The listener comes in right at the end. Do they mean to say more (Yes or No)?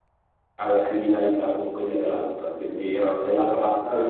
No